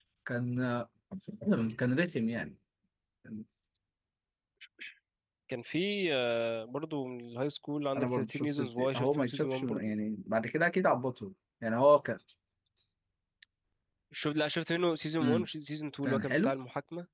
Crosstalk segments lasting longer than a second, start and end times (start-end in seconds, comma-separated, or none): 8.0-9.9